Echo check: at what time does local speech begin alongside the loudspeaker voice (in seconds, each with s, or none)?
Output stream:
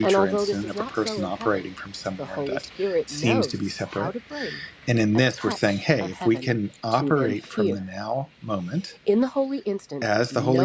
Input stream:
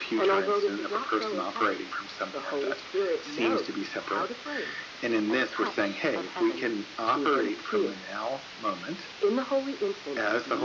none